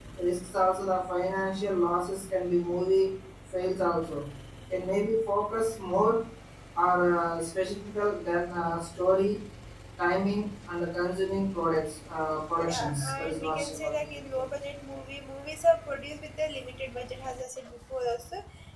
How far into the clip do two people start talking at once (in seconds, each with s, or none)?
12.6 s